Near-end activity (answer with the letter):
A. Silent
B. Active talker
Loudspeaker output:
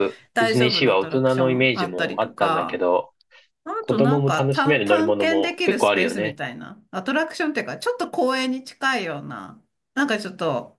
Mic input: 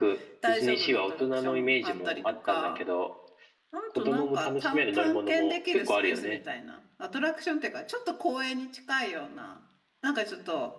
A